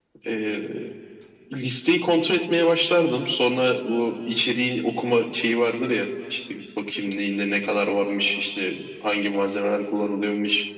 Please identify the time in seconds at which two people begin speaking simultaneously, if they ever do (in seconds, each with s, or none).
none